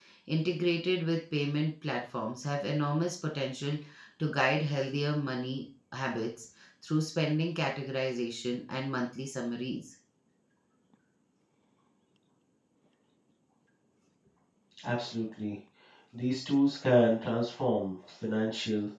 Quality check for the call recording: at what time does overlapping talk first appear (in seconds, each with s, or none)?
none